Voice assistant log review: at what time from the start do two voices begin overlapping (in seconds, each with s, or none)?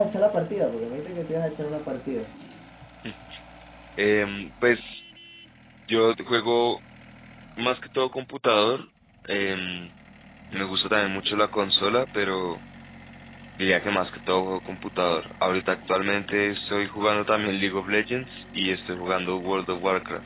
none